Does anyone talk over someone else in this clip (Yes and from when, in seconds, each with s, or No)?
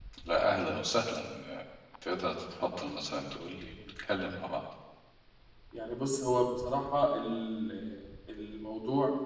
No